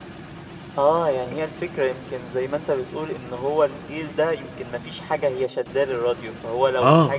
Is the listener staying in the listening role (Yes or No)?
Yes